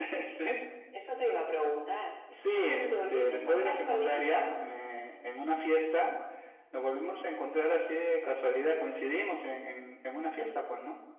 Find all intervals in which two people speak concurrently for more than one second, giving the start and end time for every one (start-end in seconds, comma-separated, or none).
2.5-4.6